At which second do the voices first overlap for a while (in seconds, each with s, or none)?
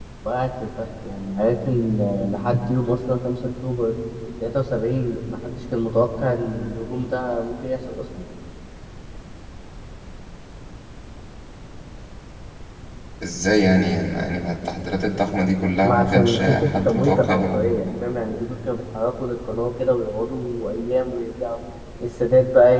15.8 s